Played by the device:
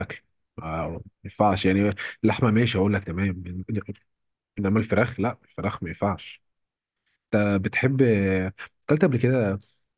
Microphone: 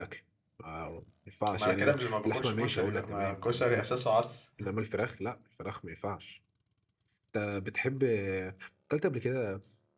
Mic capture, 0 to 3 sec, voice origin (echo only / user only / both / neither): both